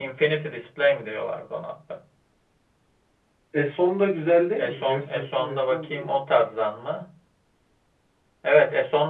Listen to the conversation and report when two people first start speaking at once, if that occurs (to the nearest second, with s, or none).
5 s